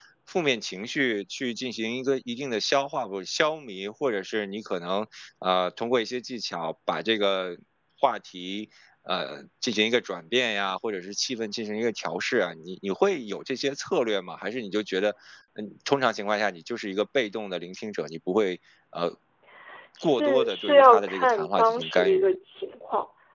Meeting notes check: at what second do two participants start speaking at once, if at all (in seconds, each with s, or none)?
20.0 s